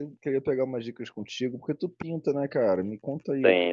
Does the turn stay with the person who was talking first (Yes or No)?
Yes